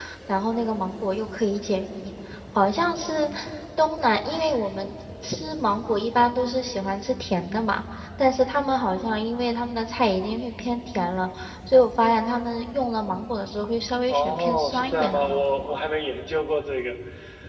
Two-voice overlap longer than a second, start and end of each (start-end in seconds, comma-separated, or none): 14.1-15.8